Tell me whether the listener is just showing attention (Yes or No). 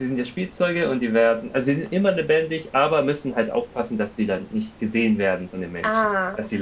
No